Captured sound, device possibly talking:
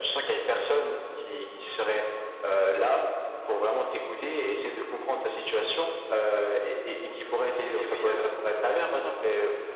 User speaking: Yes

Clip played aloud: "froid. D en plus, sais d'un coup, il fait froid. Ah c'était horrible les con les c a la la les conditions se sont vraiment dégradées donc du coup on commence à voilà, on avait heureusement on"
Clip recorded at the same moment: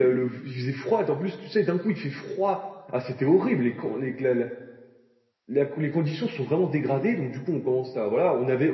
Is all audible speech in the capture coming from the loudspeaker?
Yes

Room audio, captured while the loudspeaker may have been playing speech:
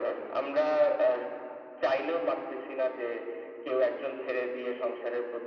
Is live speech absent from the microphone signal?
Yes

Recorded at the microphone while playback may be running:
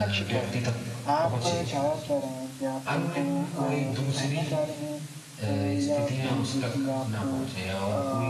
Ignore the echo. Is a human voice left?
Yes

